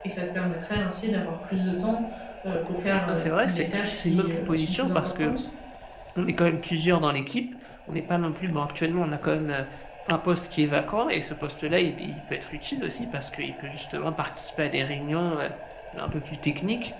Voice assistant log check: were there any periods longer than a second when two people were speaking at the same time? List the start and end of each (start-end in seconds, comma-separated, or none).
3.1-5.4